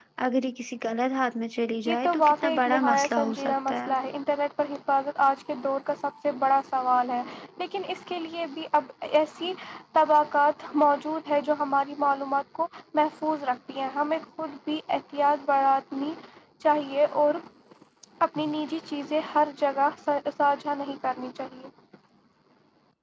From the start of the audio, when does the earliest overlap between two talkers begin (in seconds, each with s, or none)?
1.9 s